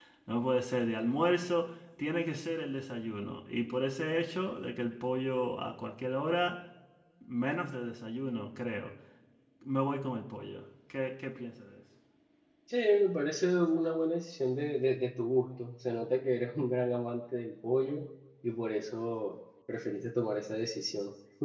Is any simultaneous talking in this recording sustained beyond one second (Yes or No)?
No